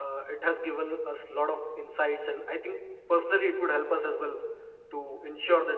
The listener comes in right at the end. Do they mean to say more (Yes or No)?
No